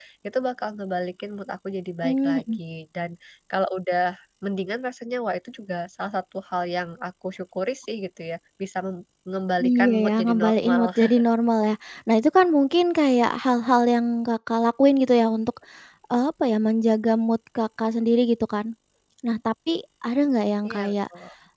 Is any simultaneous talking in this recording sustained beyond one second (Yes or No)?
Yes